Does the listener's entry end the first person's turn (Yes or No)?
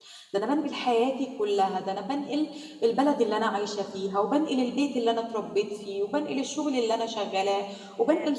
No